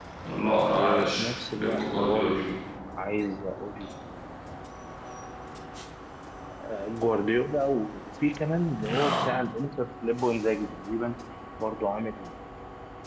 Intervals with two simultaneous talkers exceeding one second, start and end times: 0.8-2.4

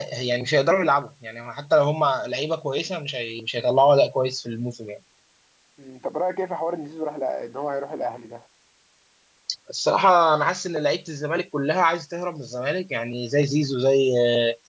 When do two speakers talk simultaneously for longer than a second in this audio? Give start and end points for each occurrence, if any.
none

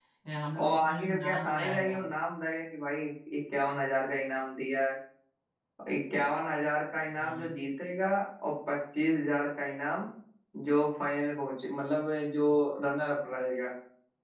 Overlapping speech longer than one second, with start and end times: 0.6-1.9

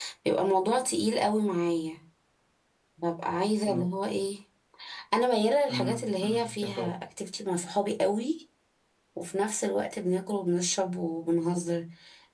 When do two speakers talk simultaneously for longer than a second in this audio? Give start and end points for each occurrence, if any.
5.7-6.9

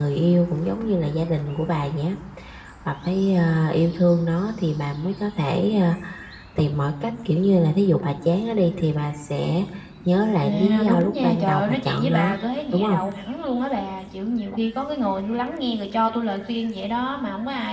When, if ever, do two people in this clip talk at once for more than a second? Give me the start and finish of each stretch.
10.4-12.4

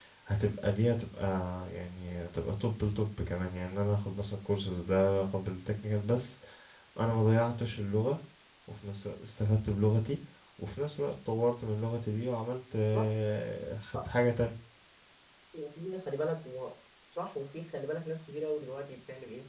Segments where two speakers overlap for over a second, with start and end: none

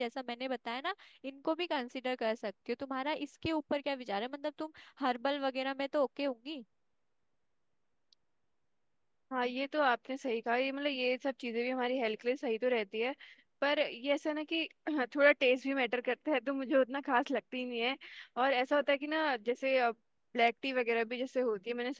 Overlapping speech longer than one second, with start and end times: none

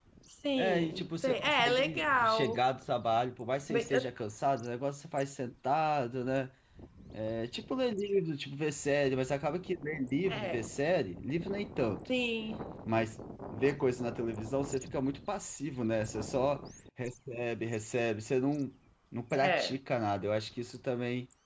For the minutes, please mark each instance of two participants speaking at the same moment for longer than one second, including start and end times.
0.6-2.6

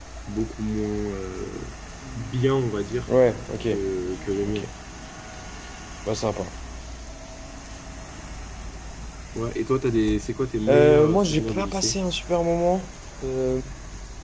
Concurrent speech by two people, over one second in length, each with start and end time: 10.7-12.0

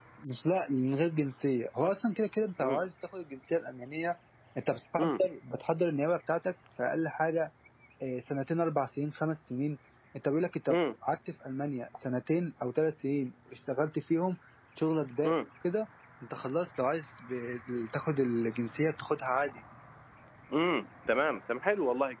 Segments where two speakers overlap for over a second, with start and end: none

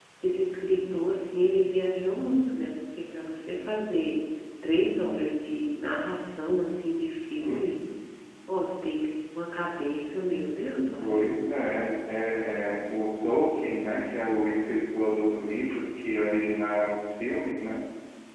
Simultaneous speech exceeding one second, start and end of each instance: none

